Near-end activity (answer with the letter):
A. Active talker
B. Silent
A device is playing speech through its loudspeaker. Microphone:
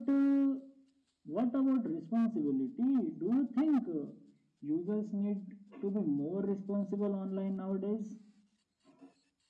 B